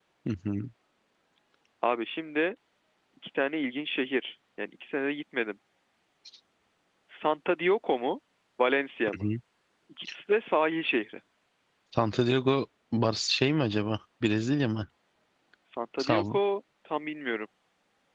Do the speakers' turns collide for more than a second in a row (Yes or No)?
No